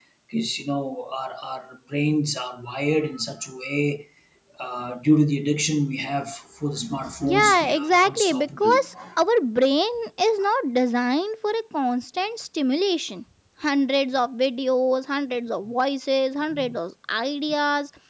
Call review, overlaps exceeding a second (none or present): present